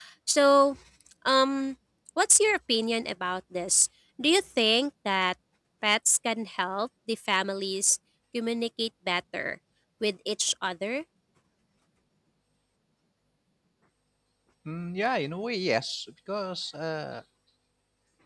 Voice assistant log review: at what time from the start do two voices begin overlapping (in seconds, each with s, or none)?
none